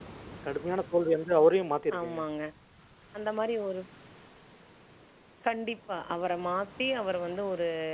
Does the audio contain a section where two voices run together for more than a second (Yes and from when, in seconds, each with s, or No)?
No